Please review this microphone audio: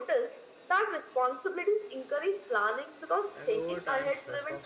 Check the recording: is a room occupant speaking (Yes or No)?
Yes